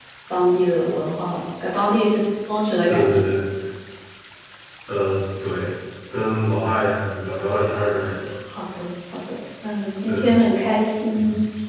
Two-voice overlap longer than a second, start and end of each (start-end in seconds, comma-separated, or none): none